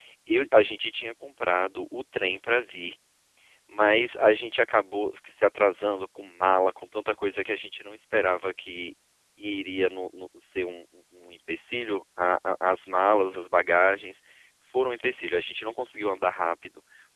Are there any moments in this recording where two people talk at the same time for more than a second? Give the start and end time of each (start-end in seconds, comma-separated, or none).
none